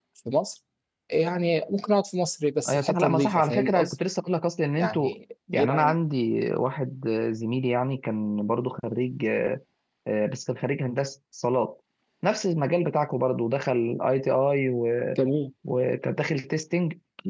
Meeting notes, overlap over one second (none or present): present